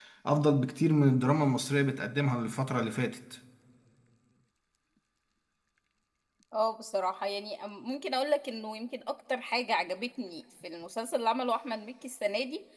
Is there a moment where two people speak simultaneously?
No

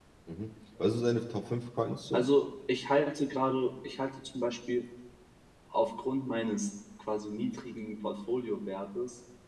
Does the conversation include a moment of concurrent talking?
No

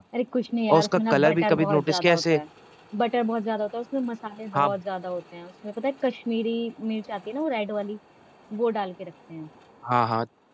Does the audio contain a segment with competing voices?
Yes, from 0.7 s

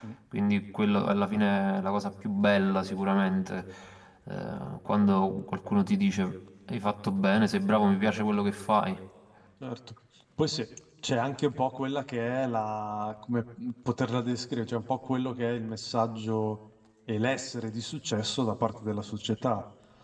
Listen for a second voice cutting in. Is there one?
No

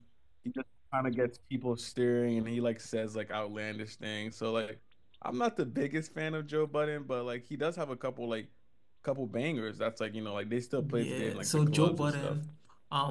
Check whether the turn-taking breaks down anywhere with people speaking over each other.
Yes, from 10.8 s

